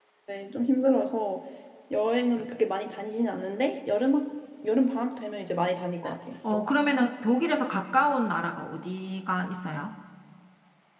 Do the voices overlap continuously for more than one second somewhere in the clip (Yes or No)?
No